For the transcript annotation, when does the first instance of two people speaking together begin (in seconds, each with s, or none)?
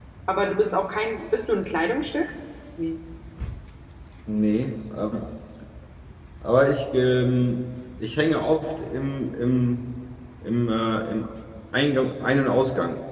none